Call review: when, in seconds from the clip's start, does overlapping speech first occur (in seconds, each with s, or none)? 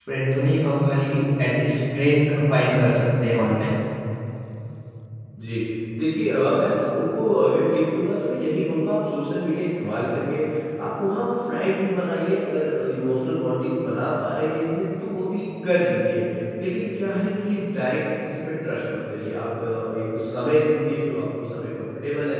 none